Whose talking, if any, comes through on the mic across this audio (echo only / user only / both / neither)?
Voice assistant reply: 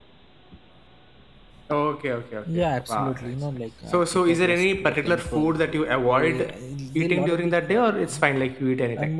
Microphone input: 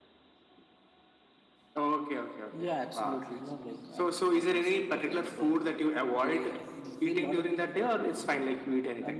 echo only